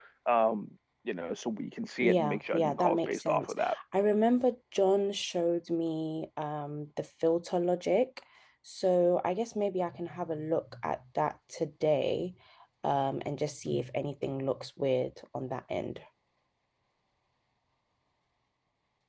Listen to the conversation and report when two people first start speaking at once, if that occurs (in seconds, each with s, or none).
2.0 s